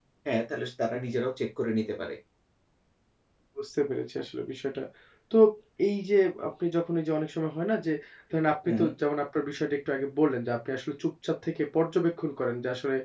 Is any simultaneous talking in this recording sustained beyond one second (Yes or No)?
No